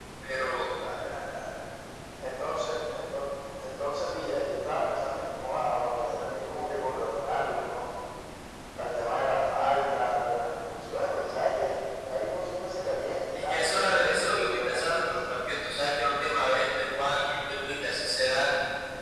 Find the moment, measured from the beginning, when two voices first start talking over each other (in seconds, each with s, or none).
13.5 s